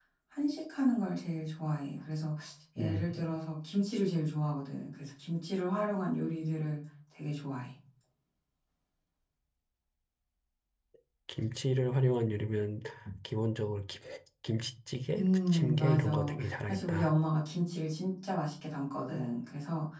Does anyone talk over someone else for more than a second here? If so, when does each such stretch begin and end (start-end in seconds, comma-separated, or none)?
15.2-17.1